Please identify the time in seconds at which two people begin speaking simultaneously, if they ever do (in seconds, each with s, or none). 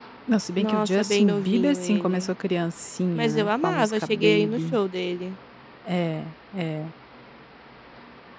0.6 s